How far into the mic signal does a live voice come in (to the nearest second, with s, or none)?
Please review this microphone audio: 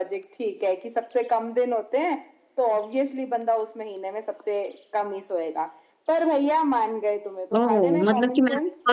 8 s